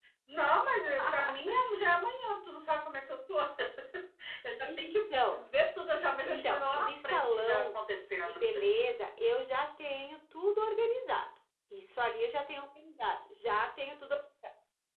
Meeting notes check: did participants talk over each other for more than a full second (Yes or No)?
Yes